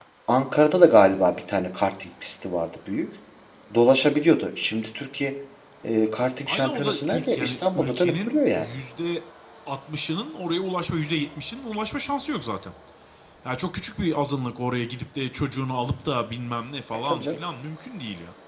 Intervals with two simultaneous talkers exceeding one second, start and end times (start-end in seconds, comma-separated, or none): 6.5-8.6